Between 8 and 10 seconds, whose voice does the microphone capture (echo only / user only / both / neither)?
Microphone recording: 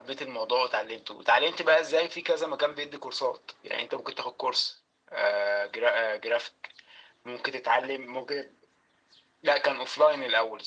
echo only